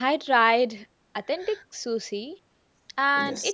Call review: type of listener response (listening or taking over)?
listening